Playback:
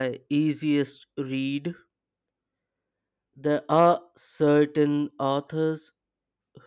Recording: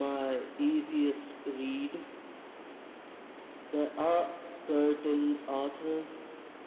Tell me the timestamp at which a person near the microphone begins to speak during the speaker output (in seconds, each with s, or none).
none